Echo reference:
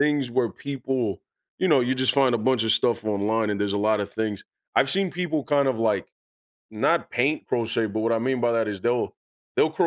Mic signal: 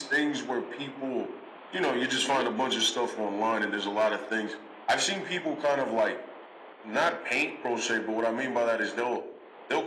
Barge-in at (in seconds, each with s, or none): 2.1 s